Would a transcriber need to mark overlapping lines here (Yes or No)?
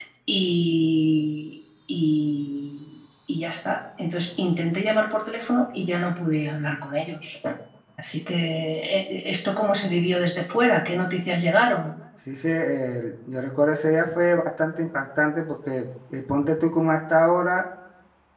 No